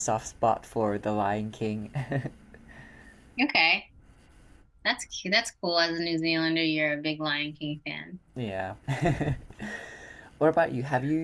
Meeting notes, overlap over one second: none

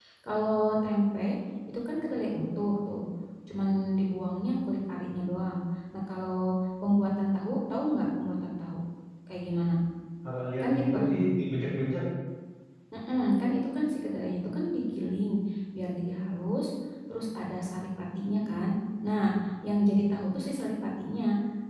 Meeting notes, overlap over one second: none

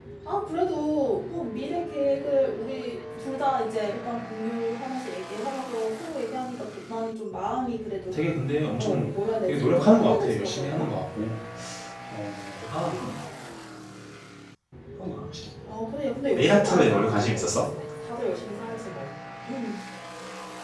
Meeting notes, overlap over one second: present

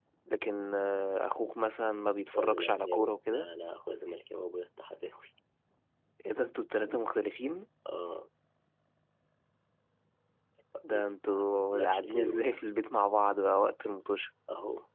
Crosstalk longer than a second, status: present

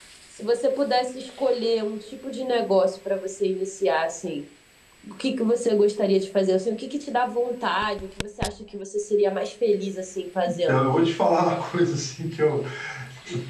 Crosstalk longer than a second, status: none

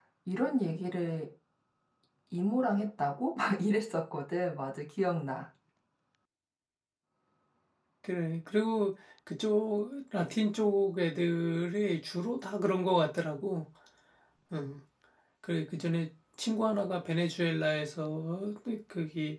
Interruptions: none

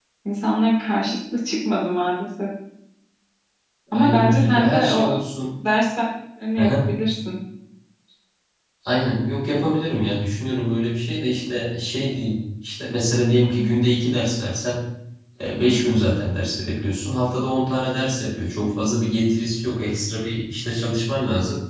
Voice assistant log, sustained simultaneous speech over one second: present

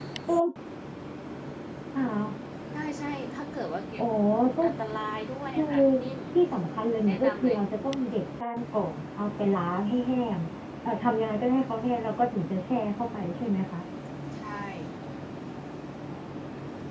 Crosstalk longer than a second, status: none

